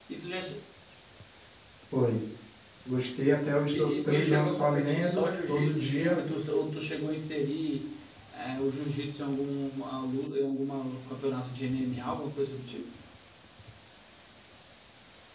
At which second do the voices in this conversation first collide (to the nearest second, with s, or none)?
4 s